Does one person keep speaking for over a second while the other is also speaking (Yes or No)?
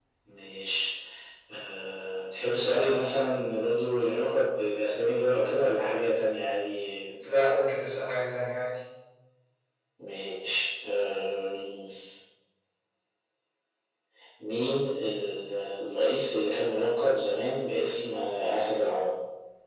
No